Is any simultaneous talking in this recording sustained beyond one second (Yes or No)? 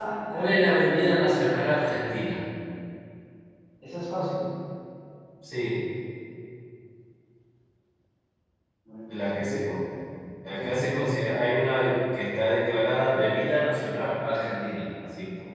No